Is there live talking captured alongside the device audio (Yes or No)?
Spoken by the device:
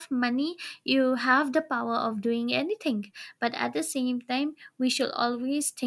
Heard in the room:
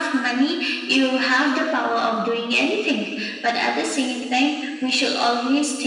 No